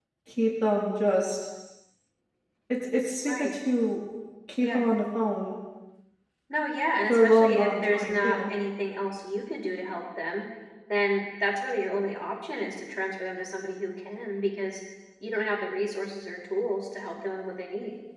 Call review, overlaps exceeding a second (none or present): present